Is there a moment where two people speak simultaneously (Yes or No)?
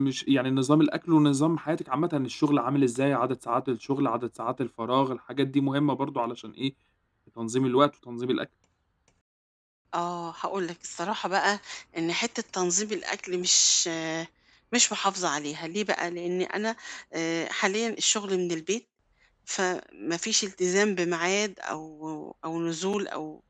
No